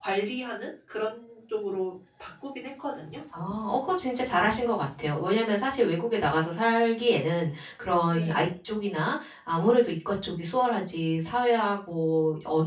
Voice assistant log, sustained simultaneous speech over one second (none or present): none